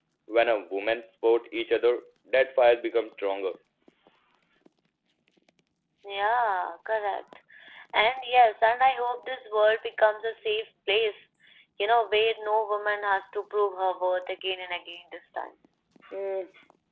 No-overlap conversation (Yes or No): Yes